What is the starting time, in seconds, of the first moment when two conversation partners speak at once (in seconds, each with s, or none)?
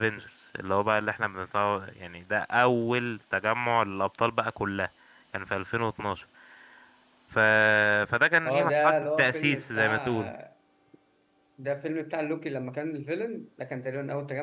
8.4 s